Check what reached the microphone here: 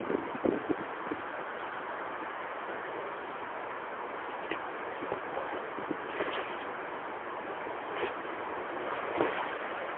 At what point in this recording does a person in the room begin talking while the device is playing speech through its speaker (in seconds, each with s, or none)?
none